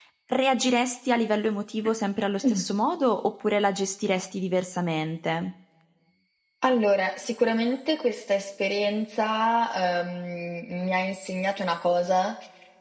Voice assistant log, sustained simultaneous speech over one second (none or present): none